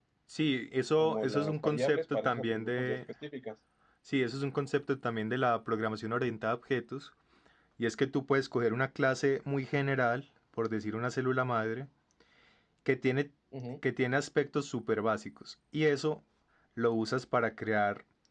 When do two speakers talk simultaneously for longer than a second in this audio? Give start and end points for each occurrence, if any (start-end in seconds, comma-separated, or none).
1.0-3.0